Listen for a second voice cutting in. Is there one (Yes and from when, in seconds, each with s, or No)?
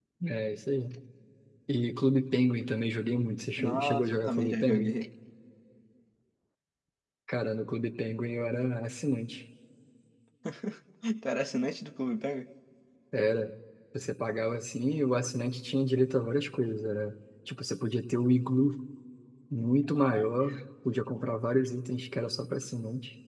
Yes, from 3.6 s